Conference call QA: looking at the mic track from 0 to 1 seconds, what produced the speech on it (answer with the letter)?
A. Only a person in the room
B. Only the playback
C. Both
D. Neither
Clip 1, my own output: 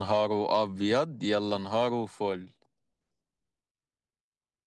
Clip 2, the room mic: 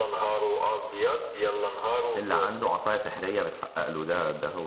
B